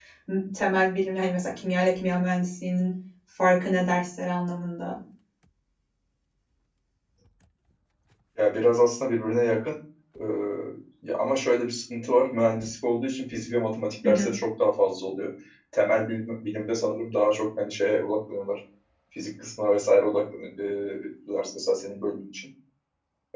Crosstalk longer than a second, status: none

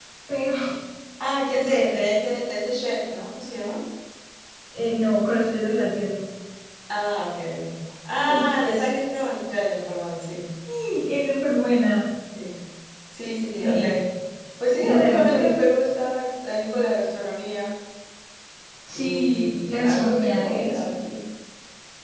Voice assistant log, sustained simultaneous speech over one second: present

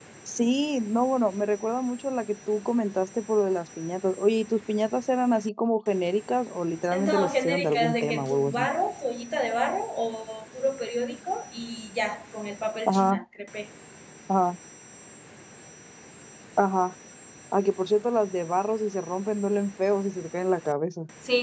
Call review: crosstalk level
present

